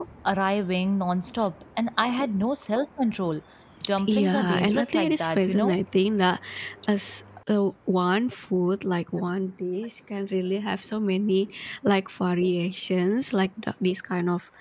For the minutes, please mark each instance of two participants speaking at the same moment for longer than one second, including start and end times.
4.1-5.7

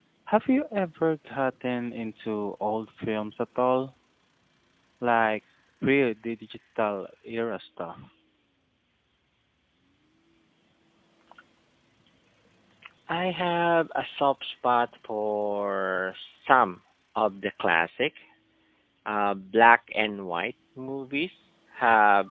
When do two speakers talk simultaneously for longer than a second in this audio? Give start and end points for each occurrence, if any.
none

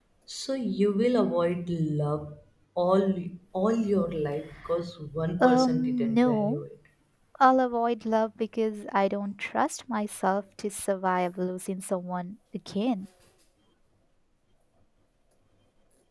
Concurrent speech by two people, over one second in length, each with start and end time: 5.4-6.6

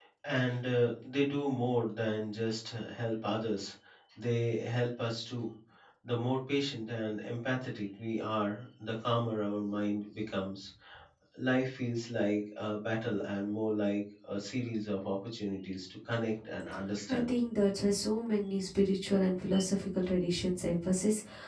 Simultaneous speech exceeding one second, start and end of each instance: none

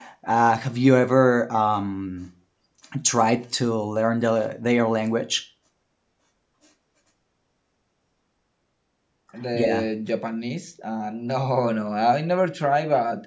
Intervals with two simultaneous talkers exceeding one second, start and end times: none

